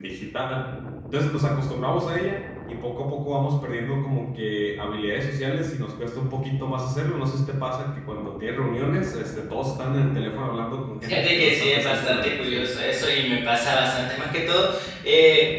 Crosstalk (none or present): present